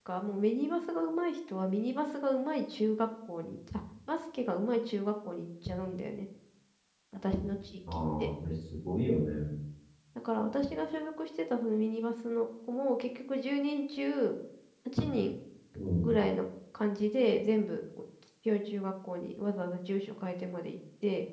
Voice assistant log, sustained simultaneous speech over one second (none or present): none